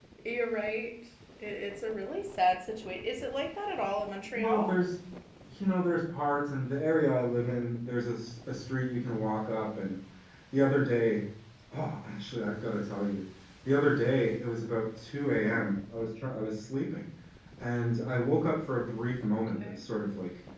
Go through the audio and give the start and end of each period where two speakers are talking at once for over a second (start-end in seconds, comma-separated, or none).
none